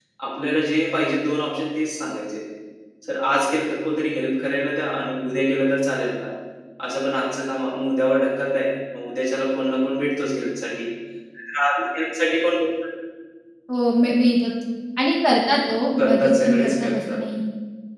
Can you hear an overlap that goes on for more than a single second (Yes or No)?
Yes